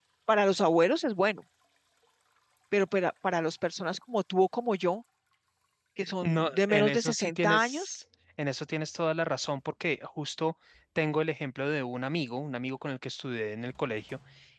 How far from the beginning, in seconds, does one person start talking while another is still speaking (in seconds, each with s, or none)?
6.2 s